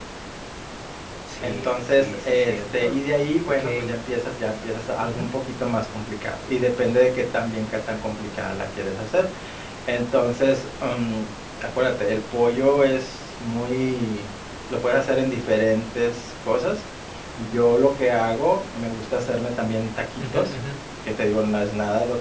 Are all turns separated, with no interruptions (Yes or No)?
No